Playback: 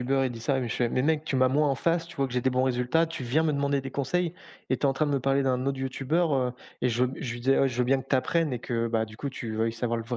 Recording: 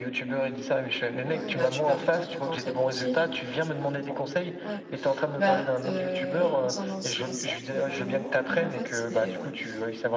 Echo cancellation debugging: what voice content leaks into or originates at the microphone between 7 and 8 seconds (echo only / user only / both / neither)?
both